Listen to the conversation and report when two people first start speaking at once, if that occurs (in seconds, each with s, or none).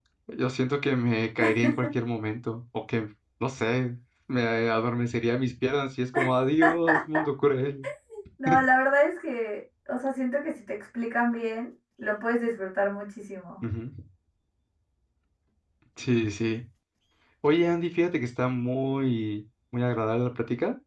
none